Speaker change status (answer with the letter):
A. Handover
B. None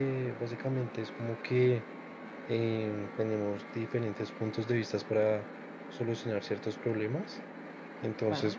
B